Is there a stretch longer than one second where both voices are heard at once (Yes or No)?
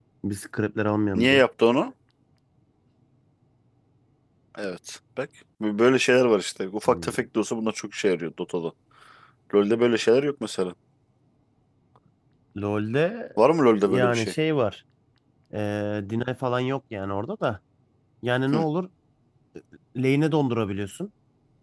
No